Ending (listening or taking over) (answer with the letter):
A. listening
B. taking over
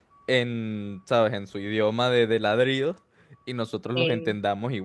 A